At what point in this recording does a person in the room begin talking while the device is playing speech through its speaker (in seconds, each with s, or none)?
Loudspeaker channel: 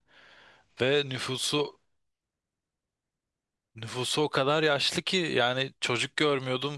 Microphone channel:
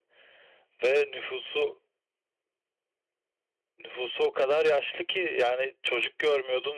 none